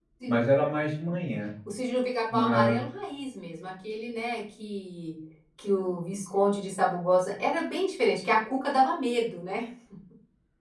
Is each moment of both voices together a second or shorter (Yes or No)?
Yes